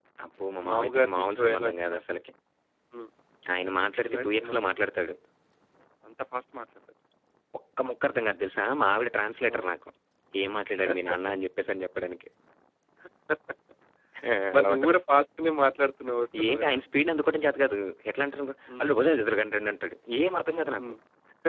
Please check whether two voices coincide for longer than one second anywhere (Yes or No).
Yes